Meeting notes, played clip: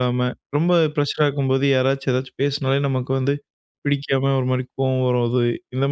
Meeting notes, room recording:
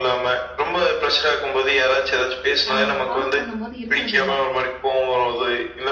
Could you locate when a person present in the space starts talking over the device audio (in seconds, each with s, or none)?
2.7 s